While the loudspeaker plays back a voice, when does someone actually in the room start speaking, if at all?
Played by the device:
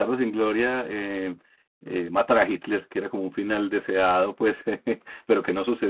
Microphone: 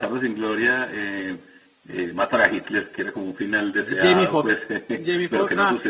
3.8 s

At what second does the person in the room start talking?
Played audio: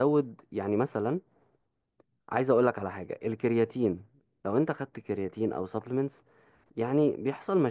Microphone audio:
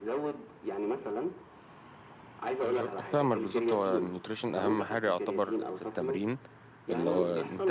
2.6 s

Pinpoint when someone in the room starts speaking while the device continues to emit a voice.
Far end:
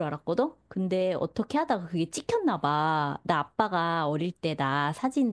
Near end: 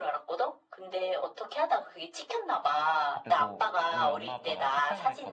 3.1 s

